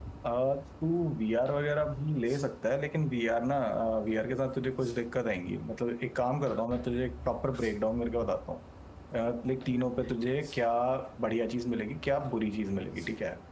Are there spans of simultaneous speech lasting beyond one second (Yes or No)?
No